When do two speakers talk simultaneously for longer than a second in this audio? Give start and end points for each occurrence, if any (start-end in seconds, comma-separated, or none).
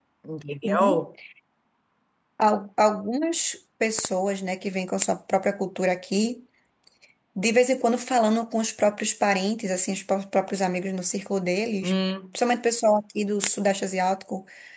none